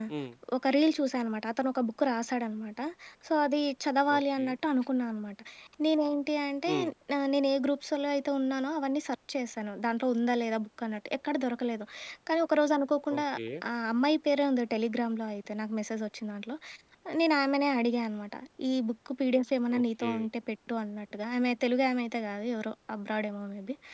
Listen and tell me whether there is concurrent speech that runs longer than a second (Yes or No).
No